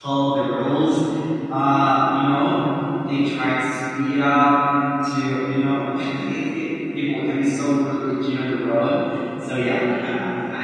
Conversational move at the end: listening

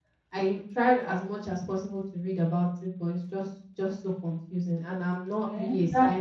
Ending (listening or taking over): taking over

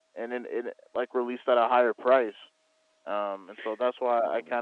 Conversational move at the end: listening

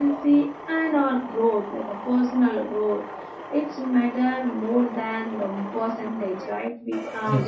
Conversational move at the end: listening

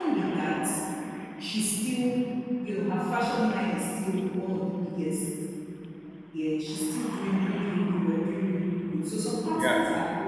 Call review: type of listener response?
listening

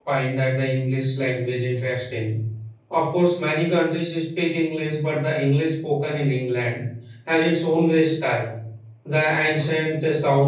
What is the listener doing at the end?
listening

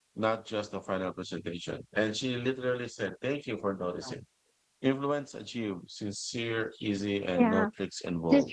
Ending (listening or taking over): taking over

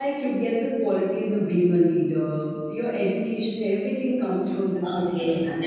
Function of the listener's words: taking over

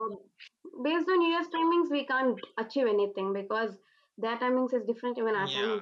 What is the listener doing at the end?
taking over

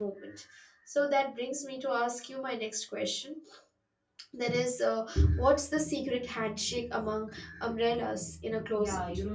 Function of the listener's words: taking over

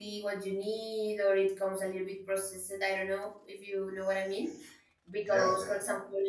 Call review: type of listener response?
listening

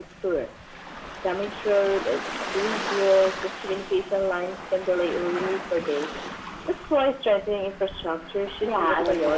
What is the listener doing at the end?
taking over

